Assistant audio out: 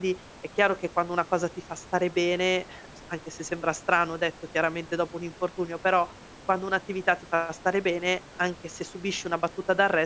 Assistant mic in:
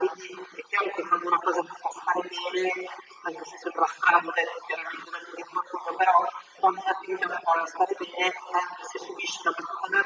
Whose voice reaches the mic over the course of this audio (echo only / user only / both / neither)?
echo only